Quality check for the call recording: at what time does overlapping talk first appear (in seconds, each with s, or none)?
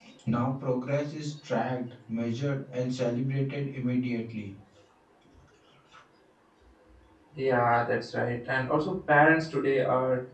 none